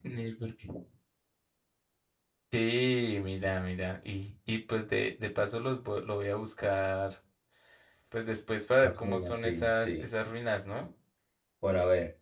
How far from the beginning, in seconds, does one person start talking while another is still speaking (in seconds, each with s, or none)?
8.8 s